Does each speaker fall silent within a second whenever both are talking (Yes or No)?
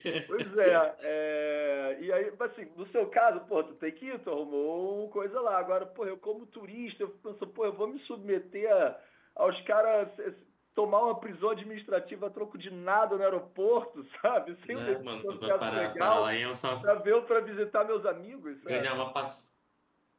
No